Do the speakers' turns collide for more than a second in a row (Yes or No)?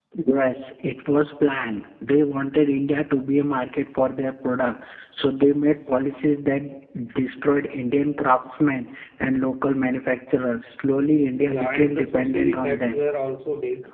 Yes